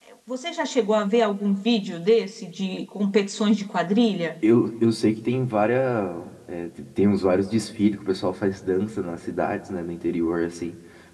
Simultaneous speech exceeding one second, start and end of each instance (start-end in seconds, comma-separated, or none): none